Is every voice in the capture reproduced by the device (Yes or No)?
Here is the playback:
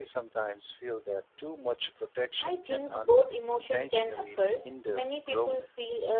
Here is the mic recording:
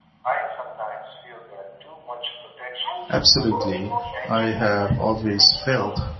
No